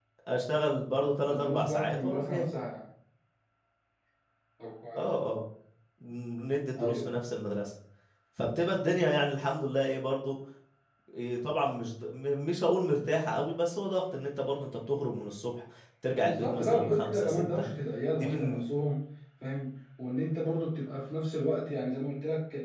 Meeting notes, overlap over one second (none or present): present